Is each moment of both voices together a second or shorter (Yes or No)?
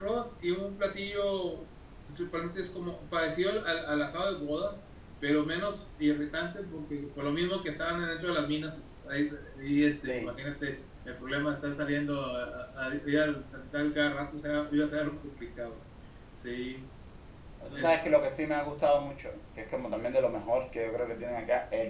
Yes